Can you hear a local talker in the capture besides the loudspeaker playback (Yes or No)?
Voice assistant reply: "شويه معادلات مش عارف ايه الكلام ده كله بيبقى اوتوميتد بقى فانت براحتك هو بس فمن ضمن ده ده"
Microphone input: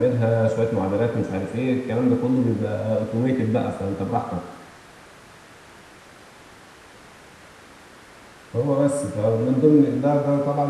No